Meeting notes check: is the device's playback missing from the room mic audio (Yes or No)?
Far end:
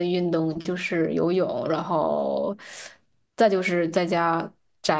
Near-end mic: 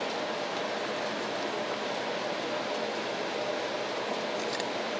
Yes